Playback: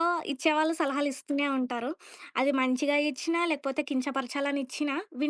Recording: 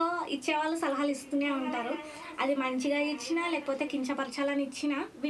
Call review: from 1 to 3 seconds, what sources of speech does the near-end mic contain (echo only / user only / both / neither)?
both